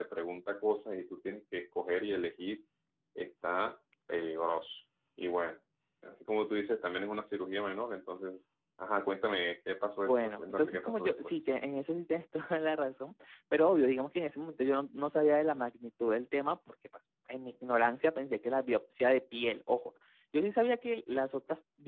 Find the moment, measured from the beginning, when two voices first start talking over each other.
10.0 s

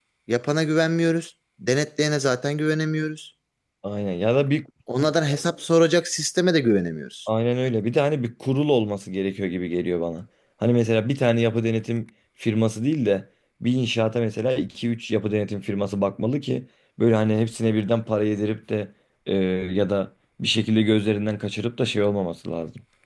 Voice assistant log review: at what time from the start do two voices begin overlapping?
none

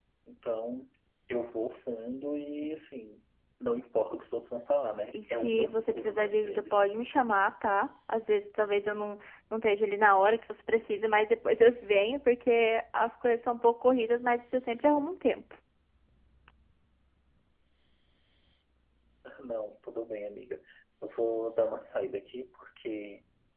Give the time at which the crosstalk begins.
5.1 s

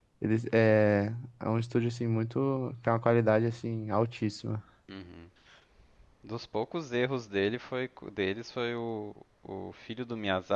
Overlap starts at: none

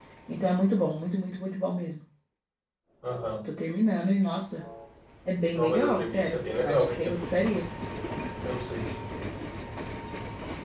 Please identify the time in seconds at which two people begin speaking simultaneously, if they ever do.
5.5 s

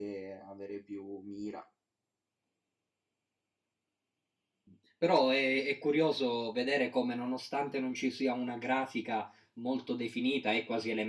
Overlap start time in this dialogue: none

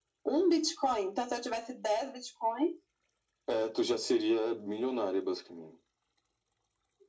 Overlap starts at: none

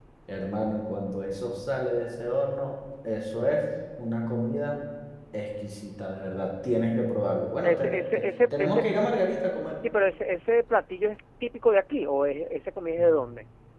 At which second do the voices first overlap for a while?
7.6 s

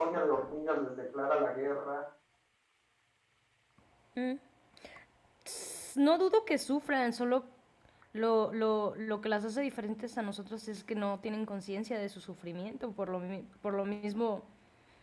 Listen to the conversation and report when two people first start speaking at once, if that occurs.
none

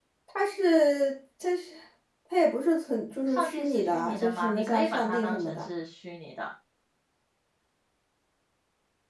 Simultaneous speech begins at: 3.3 s

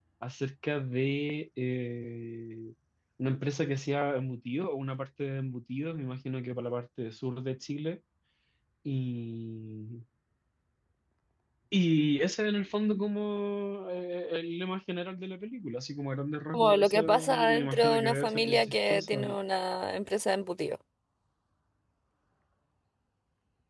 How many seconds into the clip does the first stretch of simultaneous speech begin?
16.5 s

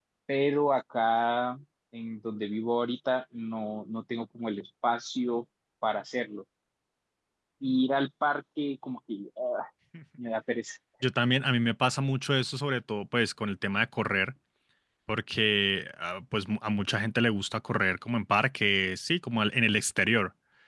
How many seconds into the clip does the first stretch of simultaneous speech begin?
none

